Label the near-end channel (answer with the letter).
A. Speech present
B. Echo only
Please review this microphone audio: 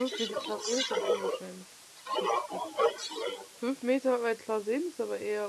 A